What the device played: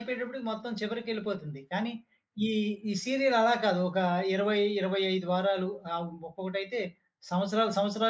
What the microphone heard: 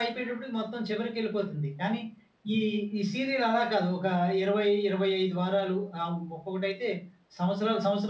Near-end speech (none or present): none